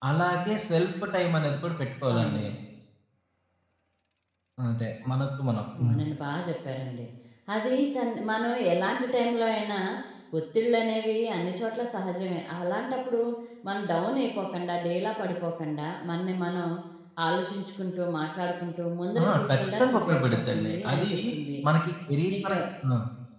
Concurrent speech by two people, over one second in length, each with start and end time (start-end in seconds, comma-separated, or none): 19.2-21.1